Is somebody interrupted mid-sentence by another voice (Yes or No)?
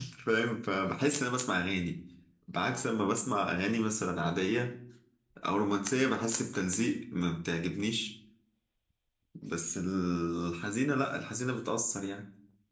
No